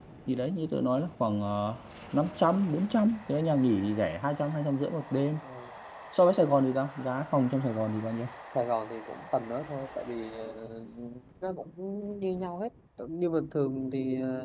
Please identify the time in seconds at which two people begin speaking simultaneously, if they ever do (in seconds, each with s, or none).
none